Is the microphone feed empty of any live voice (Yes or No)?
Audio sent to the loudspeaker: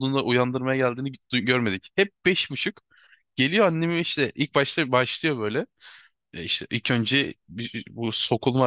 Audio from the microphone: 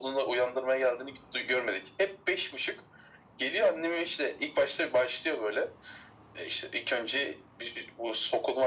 Yes